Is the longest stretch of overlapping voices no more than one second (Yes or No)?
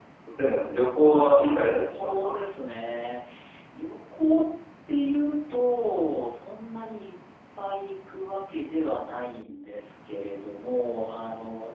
No